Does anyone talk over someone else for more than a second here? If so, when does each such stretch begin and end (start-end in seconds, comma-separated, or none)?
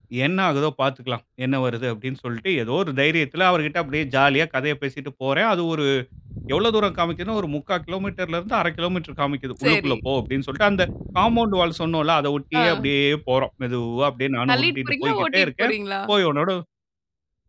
14.5-15.7